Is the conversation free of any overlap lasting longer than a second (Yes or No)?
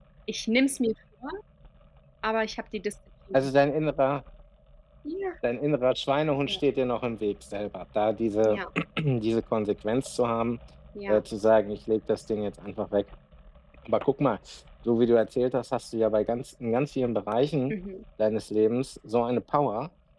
Yes